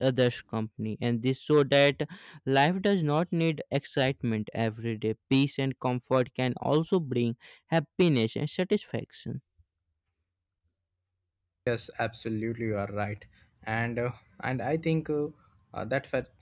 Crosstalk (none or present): none